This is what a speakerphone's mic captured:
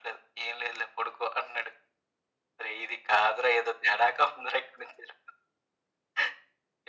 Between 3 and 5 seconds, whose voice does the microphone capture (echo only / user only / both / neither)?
echo only